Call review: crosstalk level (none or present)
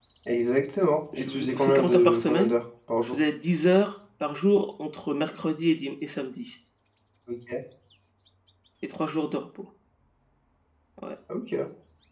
present